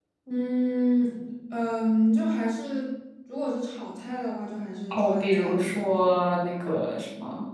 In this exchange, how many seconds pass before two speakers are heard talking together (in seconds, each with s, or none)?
4.9 s